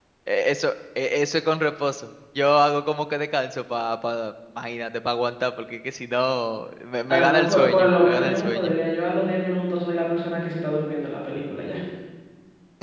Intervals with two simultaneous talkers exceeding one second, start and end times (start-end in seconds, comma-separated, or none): 7.1-8.7